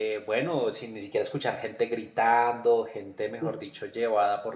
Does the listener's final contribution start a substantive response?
No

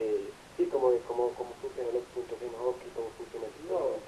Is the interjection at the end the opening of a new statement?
Yes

